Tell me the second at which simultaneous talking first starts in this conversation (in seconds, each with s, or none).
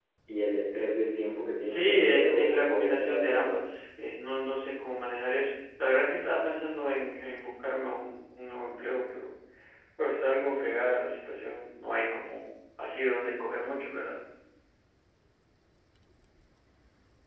1.6 s